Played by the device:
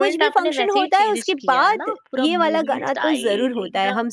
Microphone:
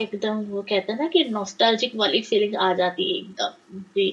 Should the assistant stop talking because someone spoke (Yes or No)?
Yes